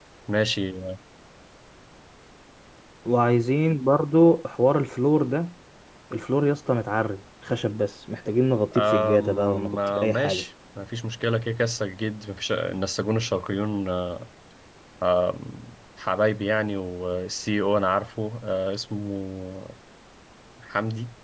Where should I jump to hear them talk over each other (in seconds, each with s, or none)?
8.7 s